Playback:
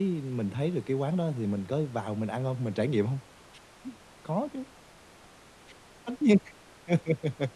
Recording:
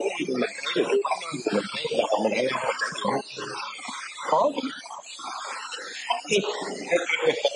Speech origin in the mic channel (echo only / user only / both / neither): echo only